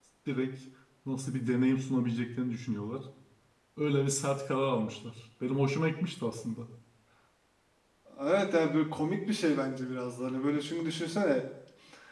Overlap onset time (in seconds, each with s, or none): none